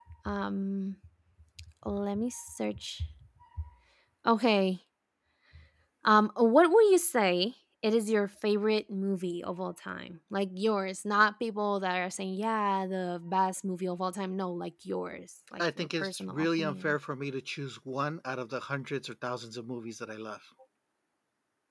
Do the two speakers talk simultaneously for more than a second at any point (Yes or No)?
Yes